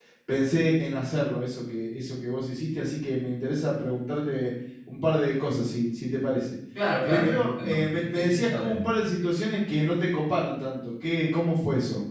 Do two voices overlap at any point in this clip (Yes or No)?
Yes